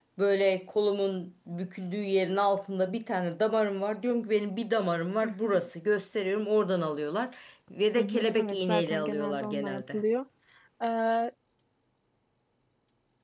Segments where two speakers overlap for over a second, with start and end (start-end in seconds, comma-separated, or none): 7.9-10.0